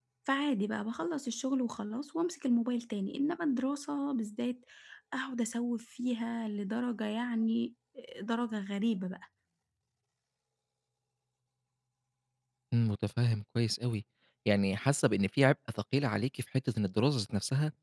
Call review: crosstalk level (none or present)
none